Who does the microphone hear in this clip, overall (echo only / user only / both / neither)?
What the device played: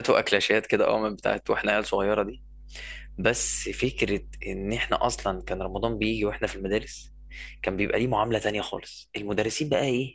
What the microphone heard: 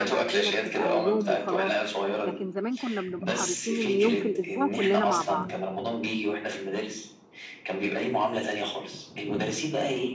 both